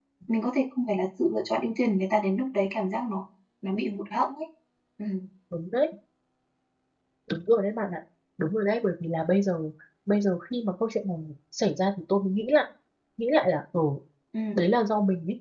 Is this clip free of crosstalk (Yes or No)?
Yes